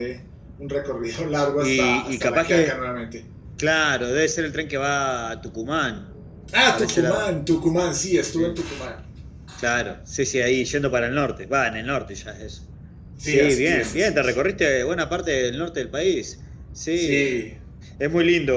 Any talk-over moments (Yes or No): Yes